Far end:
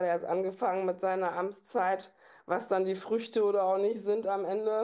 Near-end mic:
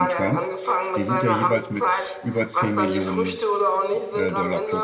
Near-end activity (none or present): present